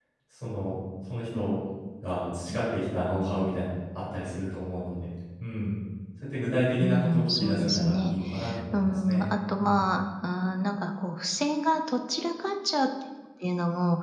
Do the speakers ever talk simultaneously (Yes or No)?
Yes